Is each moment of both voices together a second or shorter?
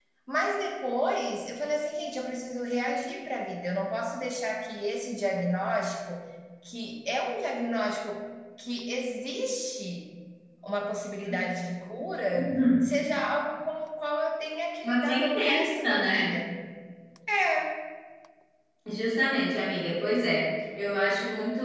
No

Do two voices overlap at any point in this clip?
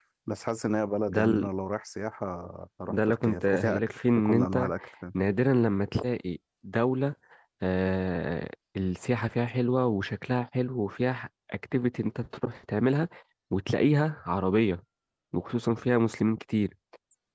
Yes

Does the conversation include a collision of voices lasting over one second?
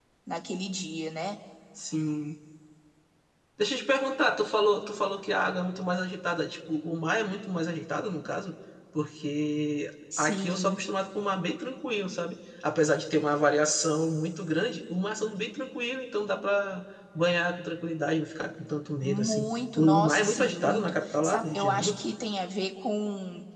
Yes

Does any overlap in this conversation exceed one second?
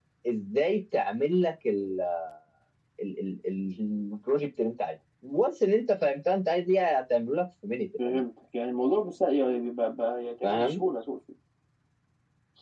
No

